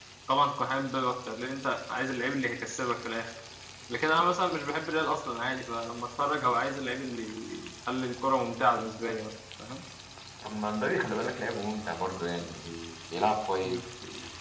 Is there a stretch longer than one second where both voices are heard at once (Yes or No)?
No